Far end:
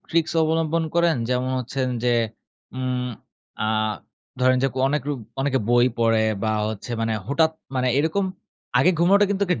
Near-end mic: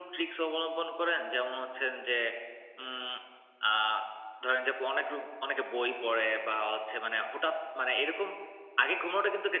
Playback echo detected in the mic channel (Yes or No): Yes